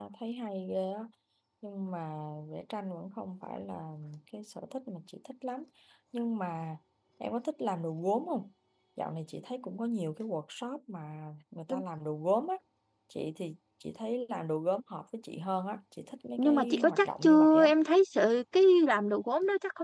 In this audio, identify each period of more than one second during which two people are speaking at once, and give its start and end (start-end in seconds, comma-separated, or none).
16.4-17.7